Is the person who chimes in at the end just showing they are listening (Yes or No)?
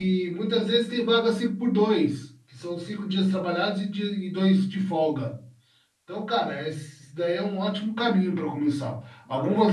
Yes